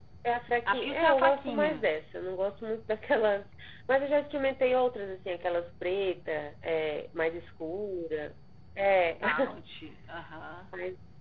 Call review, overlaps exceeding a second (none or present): present